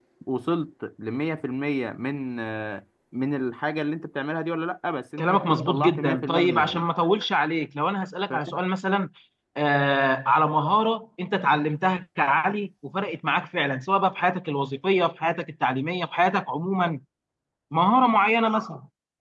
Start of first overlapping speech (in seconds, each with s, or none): 5.2 s